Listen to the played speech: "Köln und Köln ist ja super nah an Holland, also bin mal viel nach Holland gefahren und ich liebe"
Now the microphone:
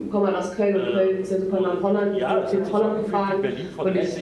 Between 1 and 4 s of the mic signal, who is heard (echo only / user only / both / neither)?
both